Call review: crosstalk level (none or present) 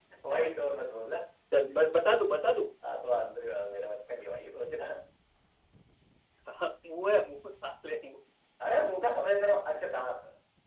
none